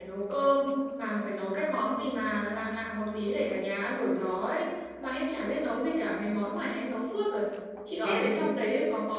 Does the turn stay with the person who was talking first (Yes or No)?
Yes